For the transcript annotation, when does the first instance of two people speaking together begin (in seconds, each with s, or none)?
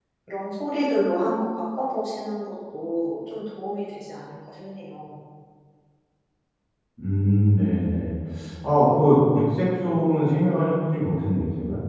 none